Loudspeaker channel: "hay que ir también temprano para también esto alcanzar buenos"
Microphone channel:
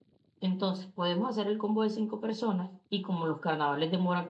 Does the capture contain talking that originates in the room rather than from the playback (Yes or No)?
Yes